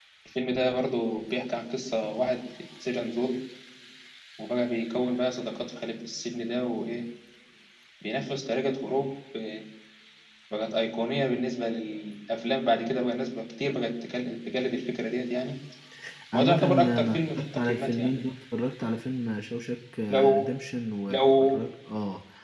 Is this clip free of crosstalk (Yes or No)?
No